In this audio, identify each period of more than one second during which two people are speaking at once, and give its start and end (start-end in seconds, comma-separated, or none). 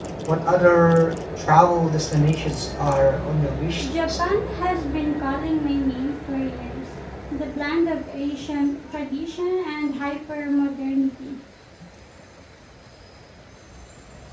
none